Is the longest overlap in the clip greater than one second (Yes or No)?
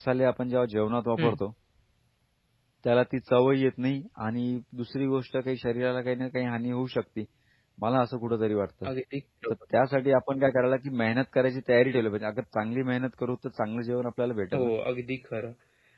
No